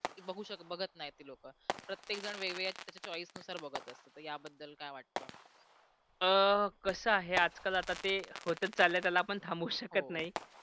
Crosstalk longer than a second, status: none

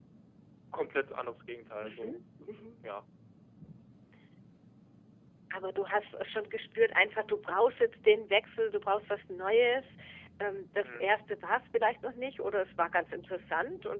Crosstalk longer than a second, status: none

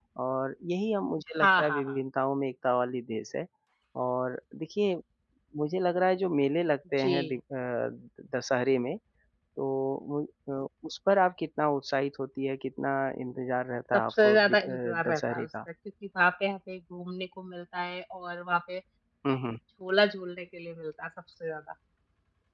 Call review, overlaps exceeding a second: present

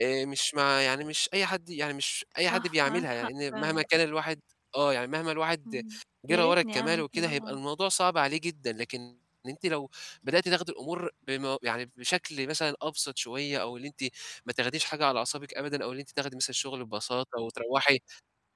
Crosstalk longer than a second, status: present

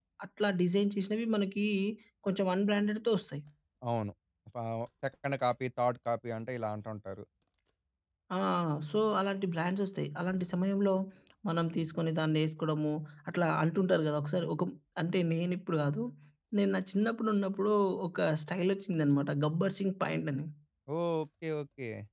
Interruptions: none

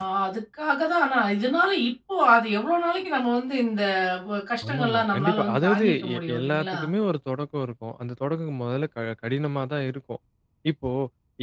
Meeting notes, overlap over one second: present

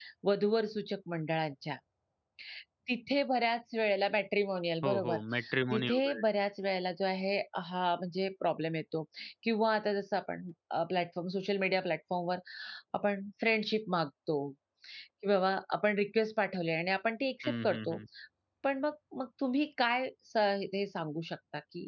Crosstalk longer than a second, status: none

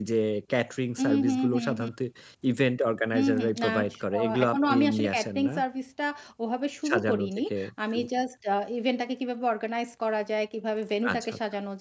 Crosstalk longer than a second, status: present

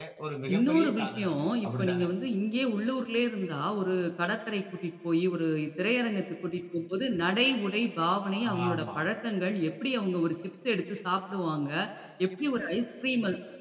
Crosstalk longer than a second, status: present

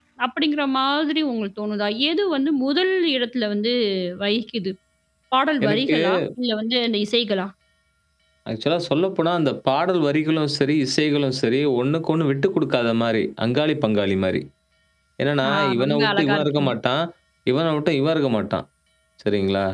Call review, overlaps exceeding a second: present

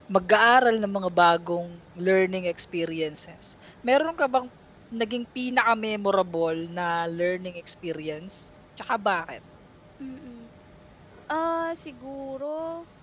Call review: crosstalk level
none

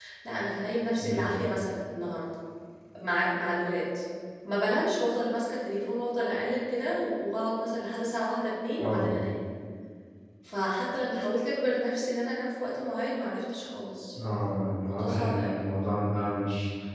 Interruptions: present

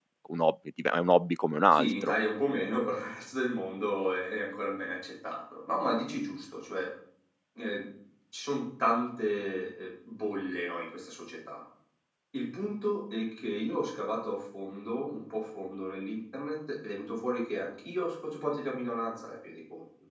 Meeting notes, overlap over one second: none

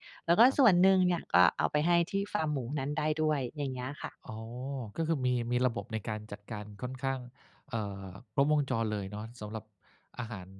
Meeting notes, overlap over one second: none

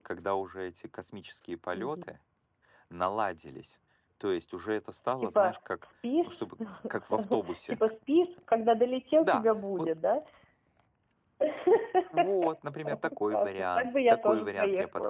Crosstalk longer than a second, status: present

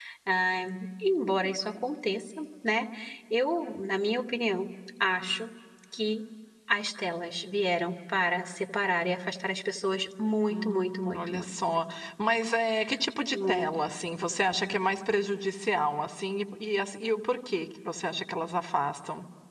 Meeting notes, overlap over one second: present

